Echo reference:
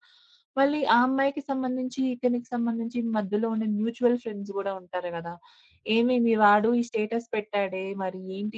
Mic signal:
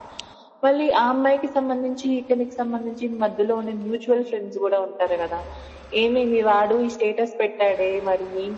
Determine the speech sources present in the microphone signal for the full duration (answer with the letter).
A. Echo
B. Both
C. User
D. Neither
A